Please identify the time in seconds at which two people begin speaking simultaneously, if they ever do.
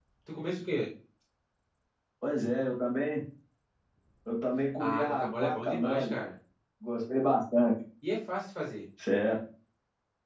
4.8 s

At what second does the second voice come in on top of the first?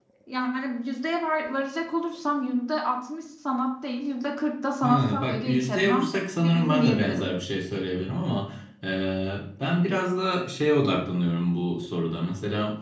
4.8 s

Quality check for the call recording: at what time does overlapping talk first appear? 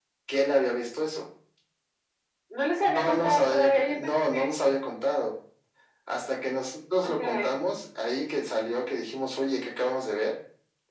2.8 s

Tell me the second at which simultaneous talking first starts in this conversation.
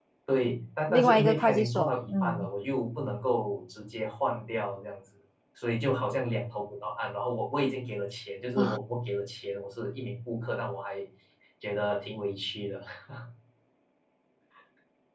0.9 s

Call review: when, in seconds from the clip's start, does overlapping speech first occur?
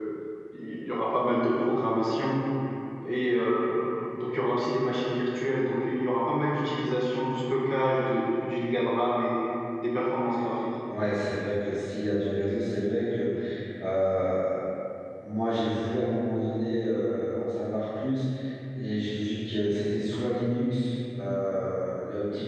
none

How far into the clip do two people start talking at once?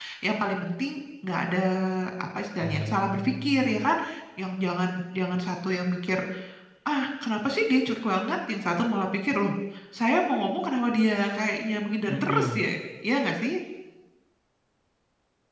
2.6 s

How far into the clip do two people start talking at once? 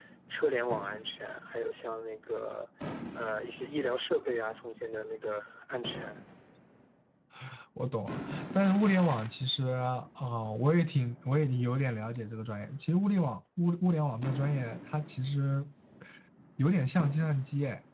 none

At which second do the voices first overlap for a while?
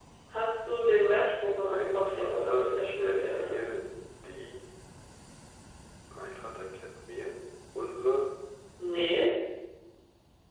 1.6 s

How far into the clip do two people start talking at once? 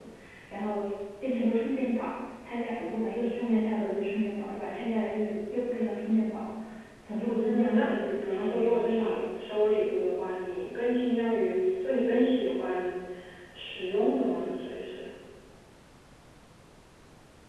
7.2 s

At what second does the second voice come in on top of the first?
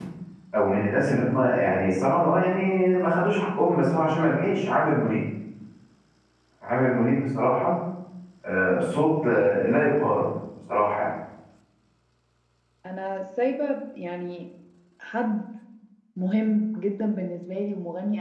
none

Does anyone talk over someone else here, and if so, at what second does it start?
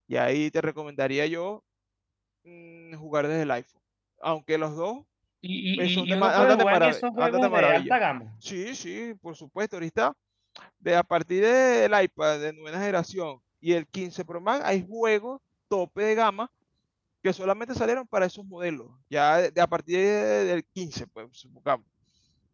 5.8 s

